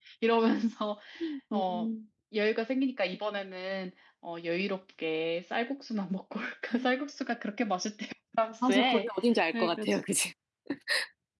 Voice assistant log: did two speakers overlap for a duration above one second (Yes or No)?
No